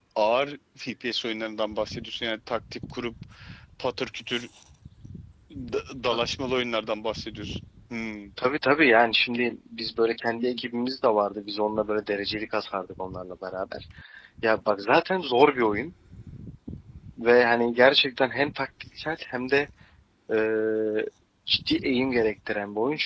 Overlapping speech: No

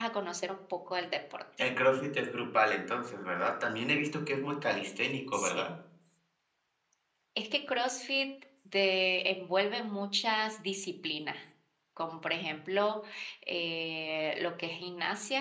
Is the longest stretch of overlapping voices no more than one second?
Yes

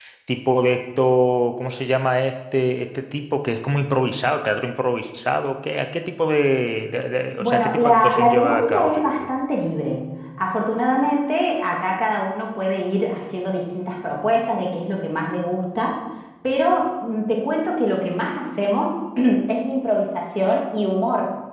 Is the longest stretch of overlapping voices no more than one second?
No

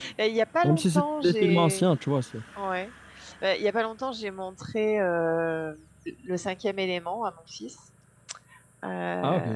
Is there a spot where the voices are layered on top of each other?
Yes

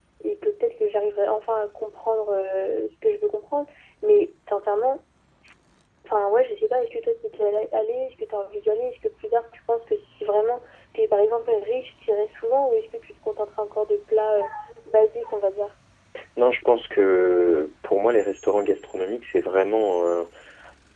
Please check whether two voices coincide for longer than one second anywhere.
No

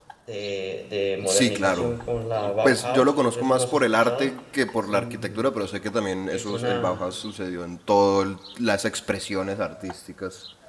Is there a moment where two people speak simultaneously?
Yes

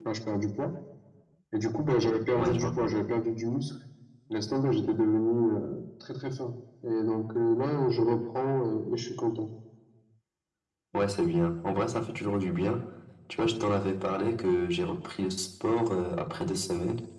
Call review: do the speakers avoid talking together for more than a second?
Yes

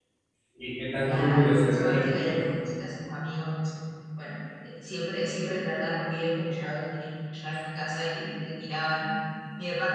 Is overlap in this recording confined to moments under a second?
No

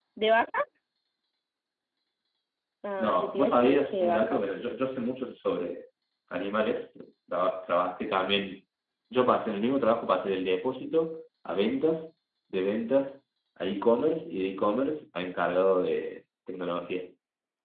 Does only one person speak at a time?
No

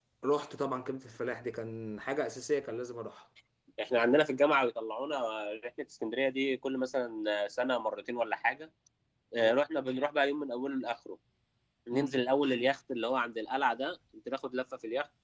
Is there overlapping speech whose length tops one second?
No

